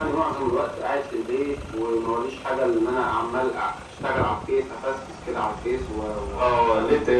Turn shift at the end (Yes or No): Yes